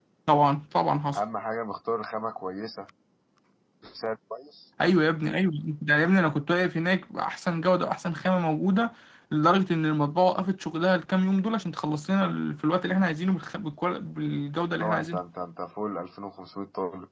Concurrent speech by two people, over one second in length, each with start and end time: none

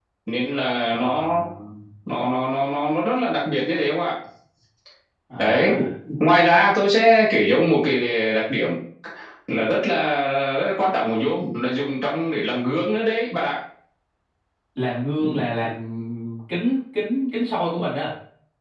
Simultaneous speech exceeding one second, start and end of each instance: none

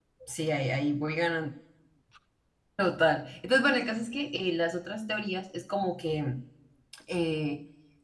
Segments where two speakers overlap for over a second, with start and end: none

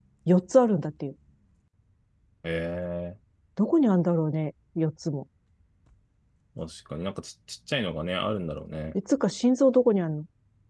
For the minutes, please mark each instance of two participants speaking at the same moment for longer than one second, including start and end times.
none

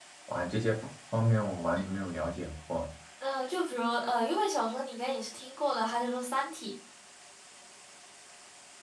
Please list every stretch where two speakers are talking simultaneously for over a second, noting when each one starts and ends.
none

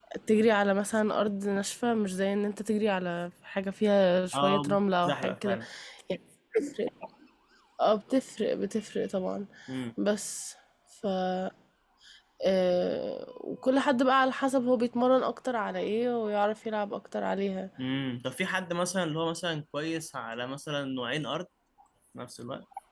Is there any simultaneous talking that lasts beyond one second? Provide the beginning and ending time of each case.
4.3-5.6

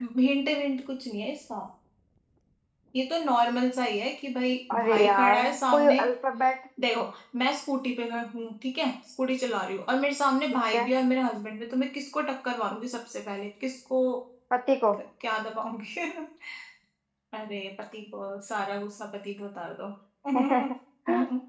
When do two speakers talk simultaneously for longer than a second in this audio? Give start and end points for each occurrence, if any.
4.7-6.0

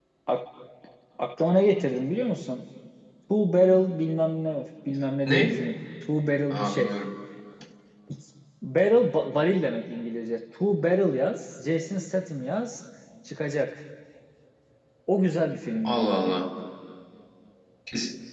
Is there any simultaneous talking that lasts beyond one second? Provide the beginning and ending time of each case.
none

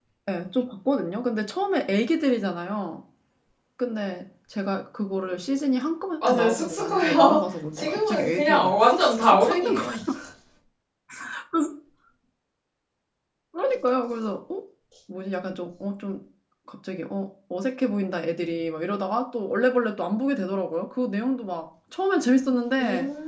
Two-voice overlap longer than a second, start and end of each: 6.2-9.9

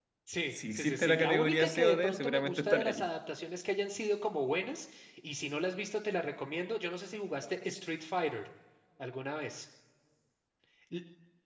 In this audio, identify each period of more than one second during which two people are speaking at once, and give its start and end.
0.5-3.1

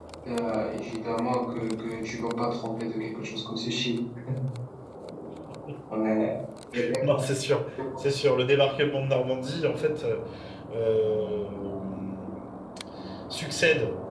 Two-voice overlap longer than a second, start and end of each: none

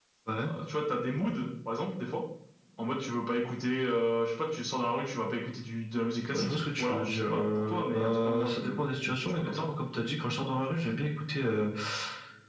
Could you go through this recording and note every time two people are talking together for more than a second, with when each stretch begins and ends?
6.3-8.8

